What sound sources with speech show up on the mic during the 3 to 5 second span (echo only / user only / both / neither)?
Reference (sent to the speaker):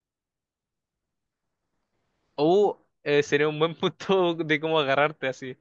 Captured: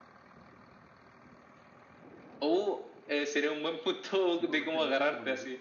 both